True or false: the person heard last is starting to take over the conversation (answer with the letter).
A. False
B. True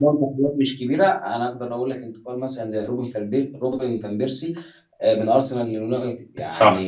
A